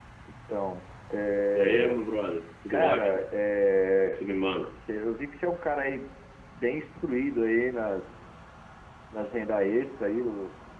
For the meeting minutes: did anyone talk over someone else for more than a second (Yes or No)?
No